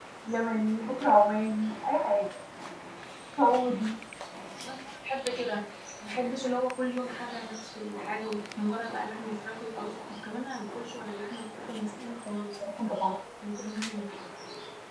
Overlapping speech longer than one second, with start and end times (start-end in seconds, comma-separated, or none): none